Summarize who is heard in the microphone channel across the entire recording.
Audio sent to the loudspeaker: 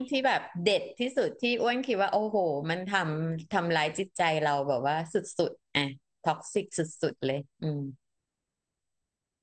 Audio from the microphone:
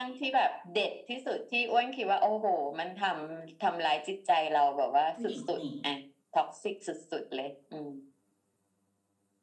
both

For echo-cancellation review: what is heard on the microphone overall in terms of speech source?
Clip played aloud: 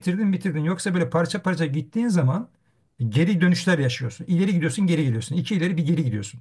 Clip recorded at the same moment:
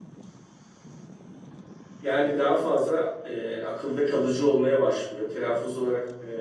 user only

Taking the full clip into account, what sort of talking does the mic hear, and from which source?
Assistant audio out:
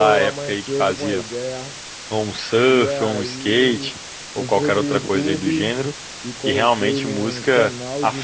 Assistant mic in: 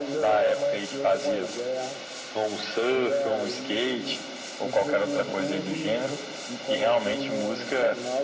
echo only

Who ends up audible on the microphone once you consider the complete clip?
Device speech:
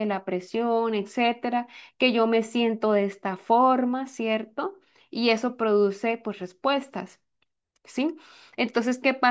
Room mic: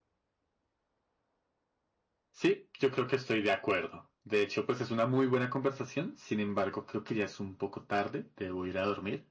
user only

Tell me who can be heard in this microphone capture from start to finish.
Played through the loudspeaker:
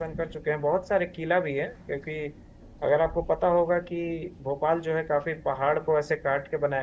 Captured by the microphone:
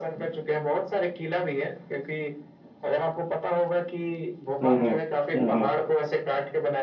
both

